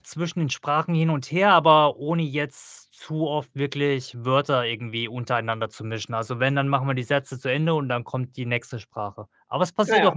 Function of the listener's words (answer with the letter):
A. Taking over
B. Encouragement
B